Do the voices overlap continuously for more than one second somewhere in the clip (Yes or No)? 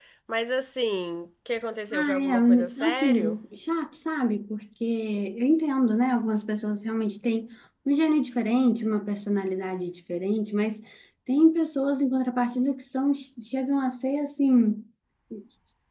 Yes